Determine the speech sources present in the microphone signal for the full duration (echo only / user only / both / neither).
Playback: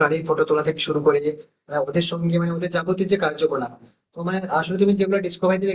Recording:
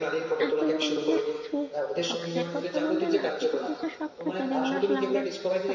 both